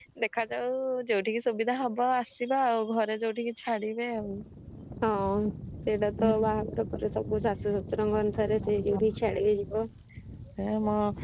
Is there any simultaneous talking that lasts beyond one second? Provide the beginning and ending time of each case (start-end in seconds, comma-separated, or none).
none